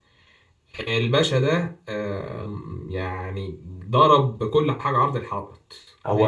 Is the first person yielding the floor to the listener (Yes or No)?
Yes